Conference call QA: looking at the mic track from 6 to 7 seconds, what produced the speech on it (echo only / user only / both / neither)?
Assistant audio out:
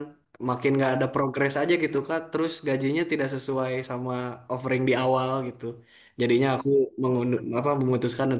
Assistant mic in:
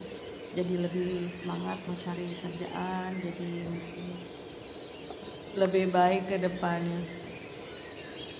user only